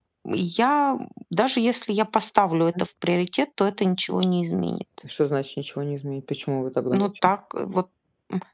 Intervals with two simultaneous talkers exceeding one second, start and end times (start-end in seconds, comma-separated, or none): none